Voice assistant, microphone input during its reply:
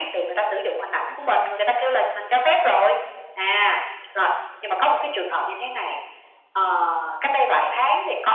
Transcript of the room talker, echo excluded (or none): none